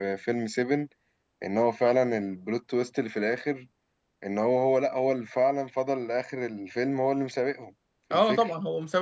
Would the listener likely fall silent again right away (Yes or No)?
No